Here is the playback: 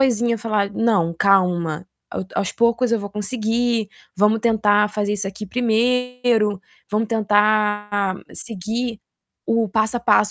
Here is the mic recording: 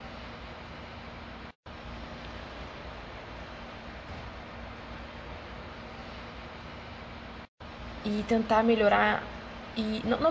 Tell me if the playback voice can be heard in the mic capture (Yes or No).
No